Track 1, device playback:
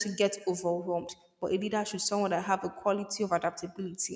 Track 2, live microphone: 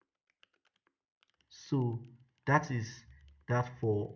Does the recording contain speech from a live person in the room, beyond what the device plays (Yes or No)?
Yes